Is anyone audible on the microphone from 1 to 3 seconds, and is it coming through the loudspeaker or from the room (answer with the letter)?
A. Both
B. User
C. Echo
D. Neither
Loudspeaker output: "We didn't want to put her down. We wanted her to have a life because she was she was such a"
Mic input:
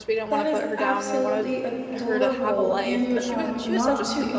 A